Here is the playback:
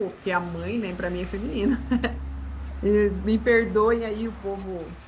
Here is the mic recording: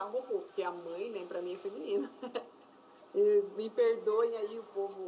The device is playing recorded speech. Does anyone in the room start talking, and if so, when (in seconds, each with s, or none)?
none